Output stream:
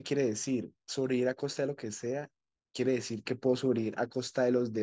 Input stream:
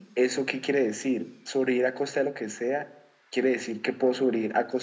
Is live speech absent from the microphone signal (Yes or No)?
Yes